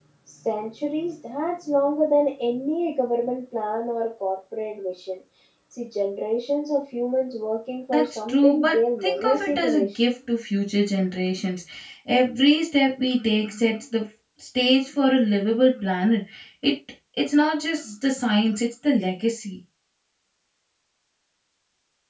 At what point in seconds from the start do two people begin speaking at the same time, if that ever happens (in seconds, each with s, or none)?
7.9 s